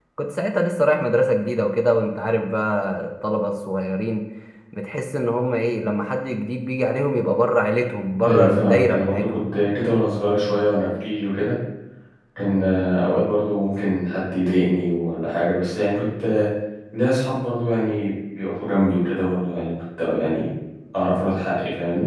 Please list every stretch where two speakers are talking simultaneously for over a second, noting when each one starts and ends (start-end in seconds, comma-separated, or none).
8.2-9.4